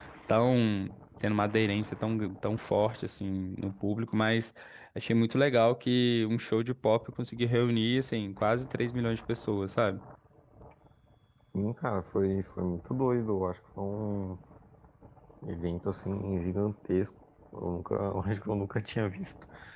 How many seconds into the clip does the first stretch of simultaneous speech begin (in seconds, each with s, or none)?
none